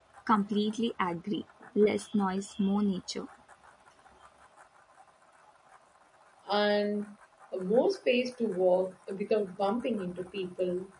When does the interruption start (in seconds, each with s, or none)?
none